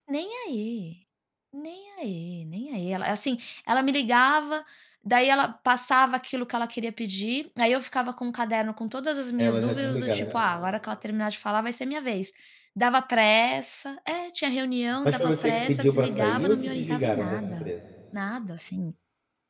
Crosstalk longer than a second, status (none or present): present